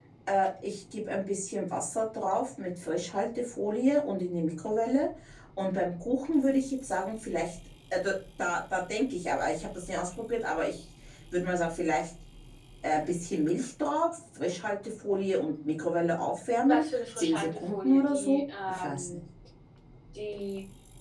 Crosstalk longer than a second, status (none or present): present